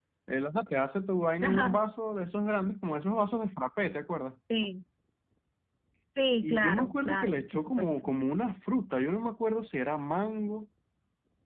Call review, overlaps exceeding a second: present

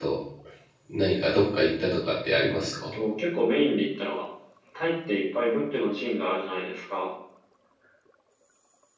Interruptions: none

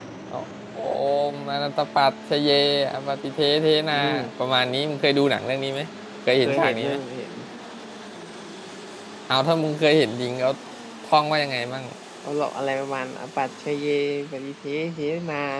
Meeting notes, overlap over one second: none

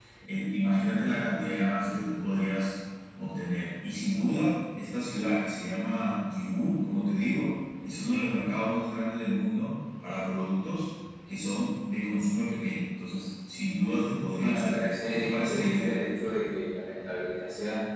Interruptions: present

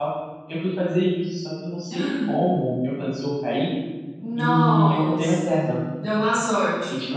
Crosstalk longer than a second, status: present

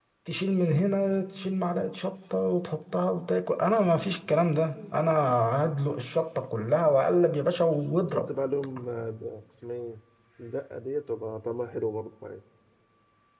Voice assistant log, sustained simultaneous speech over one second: none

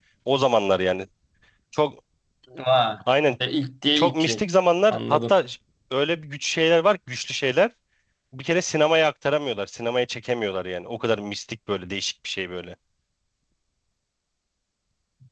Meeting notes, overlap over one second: none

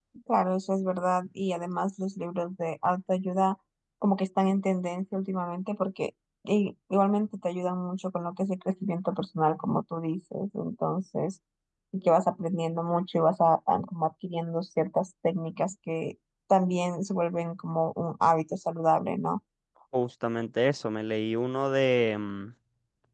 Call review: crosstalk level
none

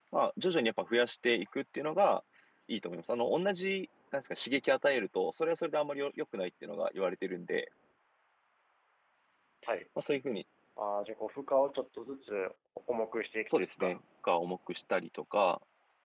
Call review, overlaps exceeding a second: none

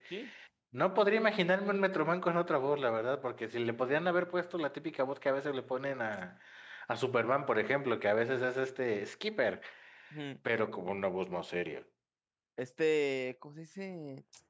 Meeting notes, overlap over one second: none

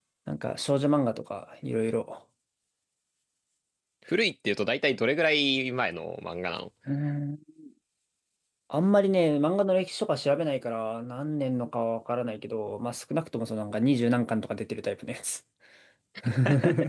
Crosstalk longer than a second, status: none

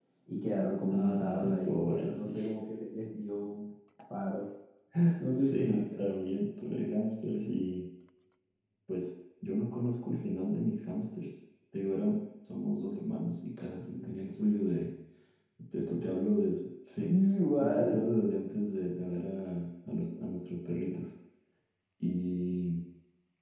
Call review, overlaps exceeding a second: present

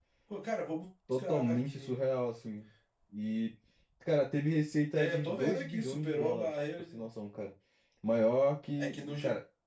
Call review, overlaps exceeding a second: present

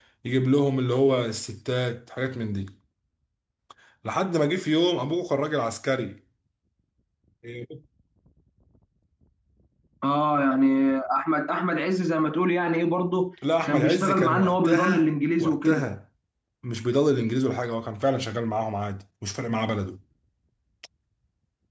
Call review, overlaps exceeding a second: present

